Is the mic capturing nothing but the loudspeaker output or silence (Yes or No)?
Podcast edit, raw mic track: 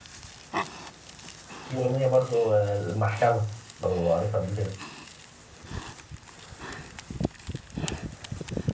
No